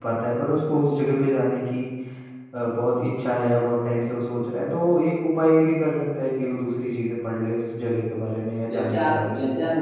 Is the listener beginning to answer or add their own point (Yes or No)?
Yes